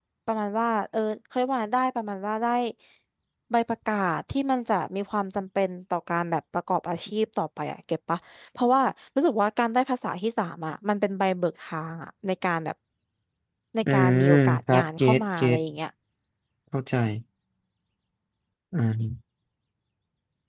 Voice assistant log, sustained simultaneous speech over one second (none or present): present